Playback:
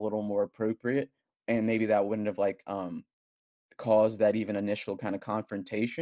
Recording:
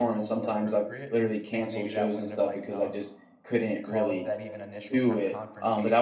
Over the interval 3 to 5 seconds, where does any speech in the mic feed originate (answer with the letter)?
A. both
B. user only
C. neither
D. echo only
A